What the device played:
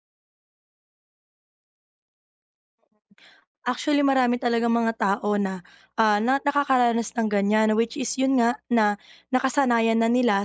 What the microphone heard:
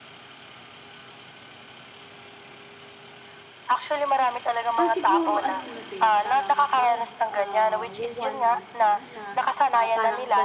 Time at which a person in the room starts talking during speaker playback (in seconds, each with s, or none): 4.8 s